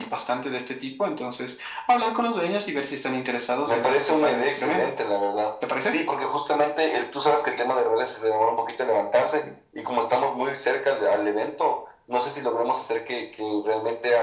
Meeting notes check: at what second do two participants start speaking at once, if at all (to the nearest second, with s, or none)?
4 s